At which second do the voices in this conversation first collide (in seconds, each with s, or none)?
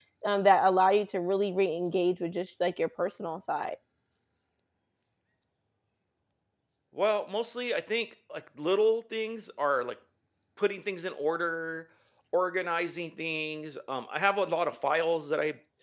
none